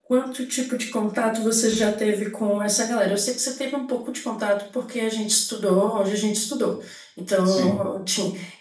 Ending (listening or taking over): listening